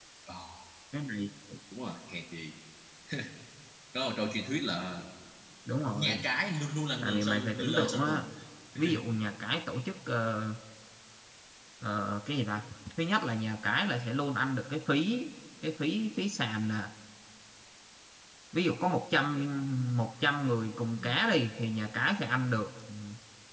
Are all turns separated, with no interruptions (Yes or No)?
No